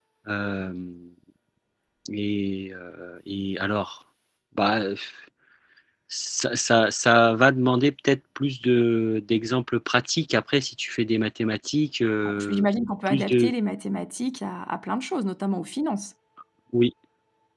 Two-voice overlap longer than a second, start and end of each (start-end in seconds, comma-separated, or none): none